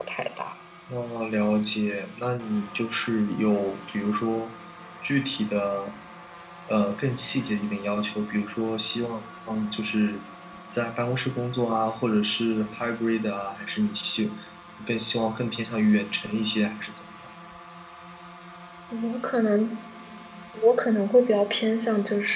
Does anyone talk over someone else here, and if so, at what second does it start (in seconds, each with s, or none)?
none